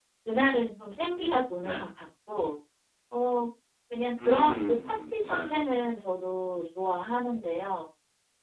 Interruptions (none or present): present